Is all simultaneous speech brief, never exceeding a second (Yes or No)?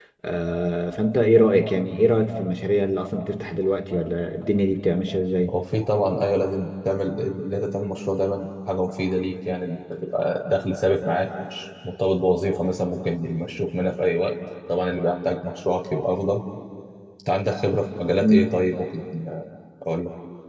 Yes